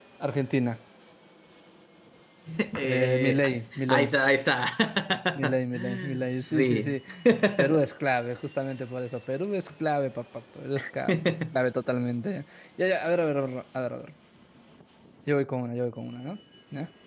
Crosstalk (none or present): present